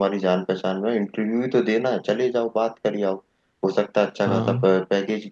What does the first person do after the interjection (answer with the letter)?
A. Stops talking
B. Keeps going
B